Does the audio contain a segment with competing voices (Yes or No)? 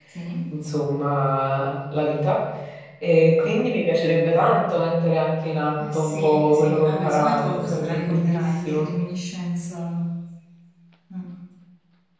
Yes